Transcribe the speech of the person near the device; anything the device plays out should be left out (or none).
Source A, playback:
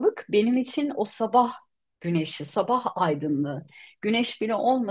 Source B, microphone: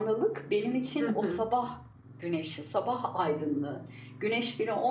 Hı hı.